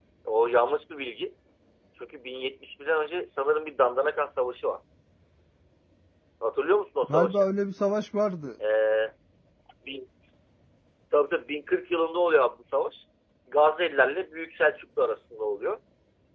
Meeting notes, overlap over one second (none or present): none